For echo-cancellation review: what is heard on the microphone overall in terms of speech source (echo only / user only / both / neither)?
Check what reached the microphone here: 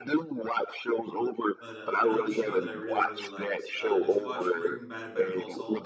both